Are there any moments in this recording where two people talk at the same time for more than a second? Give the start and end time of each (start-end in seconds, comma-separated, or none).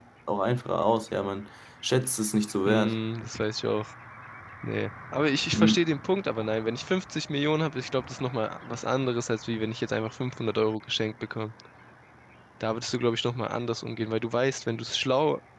none